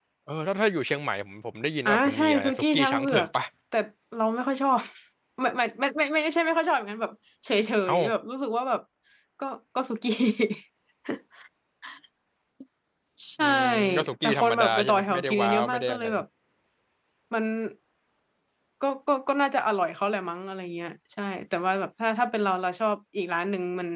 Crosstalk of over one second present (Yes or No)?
Yes